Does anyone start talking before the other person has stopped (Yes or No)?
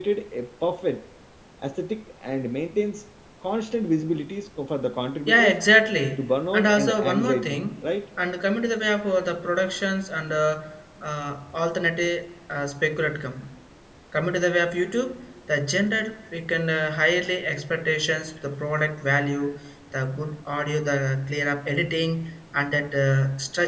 Yes